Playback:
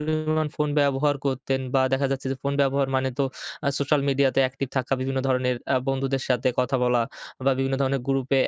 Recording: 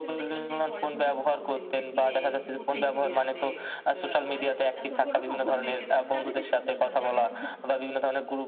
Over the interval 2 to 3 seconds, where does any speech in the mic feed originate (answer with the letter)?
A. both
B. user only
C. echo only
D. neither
A